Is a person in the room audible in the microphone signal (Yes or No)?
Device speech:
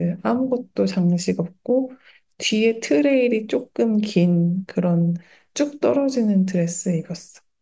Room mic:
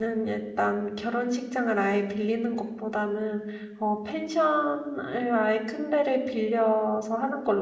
Yes